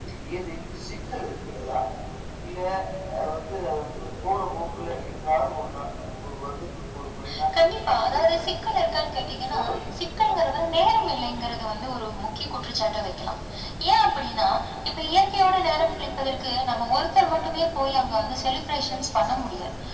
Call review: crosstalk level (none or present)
present